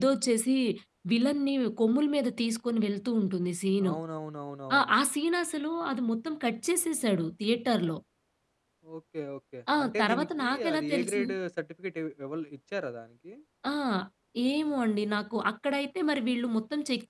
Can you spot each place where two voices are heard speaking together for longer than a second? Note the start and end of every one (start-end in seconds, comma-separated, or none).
9.8-11.3